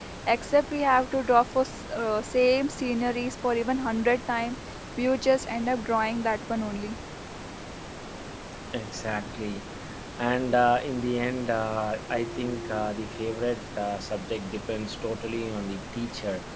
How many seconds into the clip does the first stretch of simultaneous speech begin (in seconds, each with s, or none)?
none